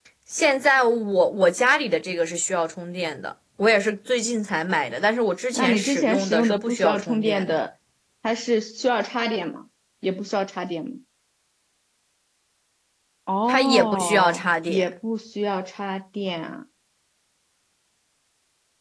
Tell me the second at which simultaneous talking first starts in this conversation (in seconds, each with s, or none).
5.5 s